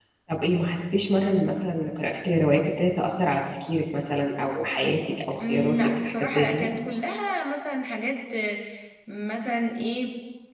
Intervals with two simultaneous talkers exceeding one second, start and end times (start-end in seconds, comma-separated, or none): 5.4-6.7